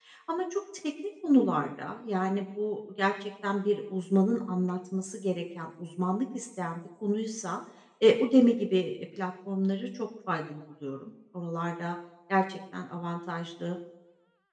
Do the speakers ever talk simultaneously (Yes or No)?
No